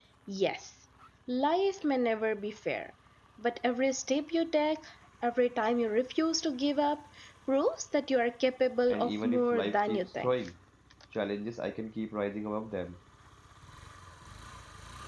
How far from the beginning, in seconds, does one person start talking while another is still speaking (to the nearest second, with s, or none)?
9 s